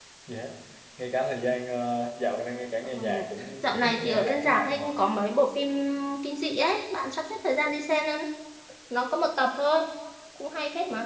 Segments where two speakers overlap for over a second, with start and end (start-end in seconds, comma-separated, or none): 3.6-4.8